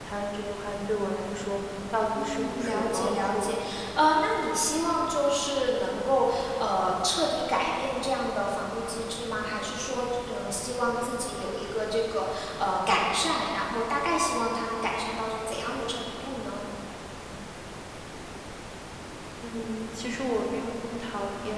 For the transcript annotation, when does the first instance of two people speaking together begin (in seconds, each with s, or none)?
2.2 s